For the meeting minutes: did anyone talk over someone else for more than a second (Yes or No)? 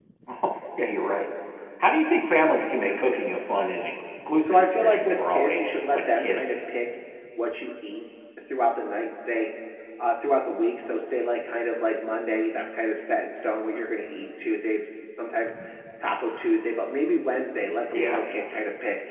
Yes